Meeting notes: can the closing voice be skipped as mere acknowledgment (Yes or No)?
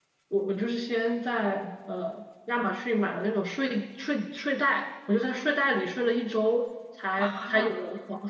Yes